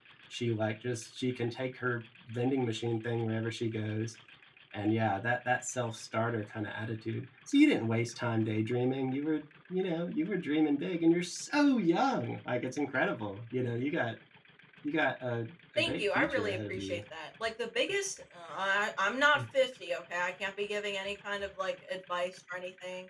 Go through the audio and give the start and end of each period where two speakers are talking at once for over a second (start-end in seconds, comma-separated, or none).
15.8-17.0